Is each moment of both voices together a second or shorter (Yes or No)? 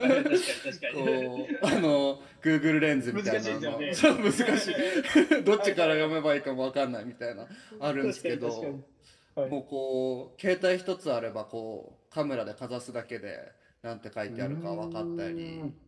No